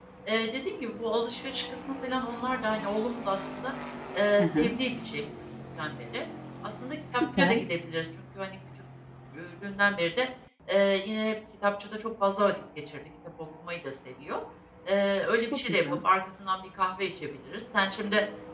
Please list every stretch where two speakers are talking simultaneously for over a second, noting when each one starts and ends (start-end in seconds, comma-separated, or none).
none